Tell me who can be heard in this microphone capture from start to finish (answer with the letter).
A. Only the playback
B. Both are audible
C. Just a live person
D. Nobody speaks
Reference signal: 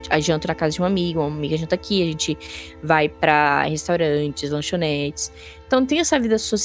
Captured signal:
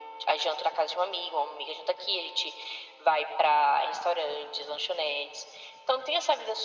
A